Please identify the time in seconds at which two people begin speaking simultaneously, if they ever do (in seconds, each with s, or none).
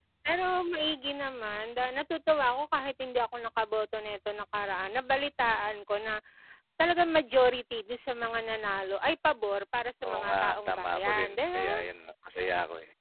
10.0 s